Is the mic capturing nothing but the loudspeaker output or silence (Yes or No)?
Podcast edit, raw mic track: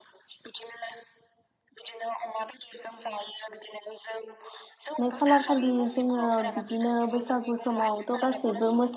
No